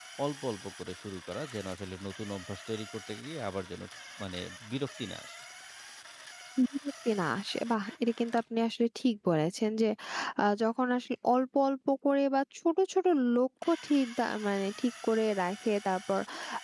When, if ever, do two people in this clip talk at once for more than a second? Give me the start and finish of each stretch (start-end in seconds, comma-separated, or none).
none